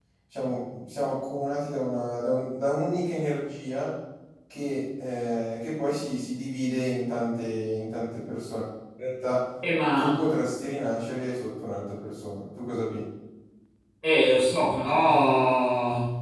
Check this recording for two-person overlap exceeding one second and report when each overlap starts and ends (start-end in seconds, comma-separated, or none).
none